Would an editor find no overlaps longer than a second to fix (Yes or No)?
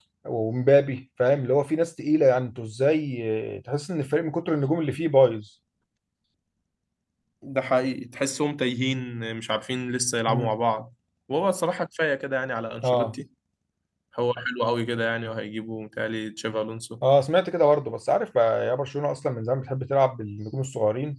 Yes